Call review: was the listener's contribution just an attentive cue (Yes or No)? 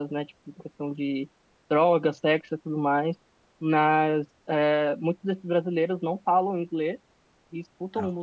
Yes